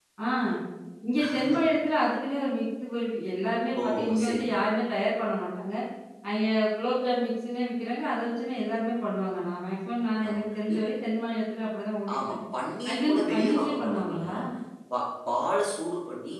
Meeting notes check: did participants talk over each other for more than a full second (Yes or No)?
Yes